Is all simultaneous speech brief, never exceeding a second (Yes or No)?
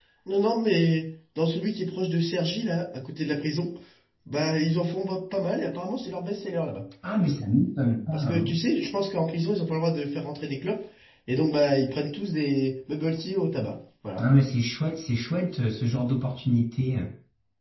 Yes